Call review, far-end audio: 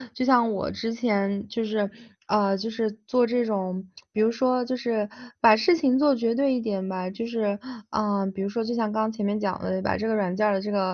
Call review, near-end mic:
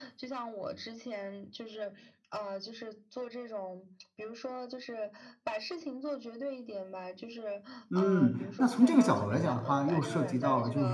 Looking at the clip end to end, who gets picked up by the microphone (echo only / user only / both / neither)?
both